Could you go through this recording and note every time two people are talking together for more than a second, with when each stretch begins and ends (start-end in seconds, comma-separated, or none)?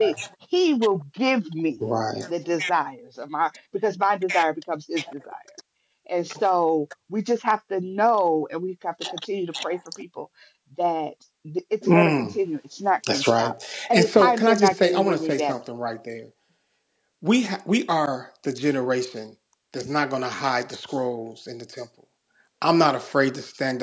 13.9-15.6